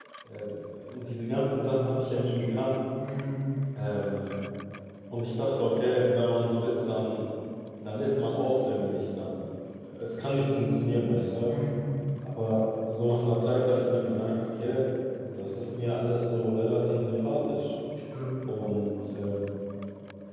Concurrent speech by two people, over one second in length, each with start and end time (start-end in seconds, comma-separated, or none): none